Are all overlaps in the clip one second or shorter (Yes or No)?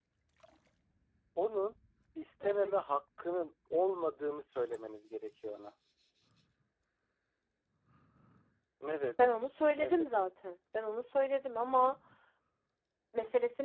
Yes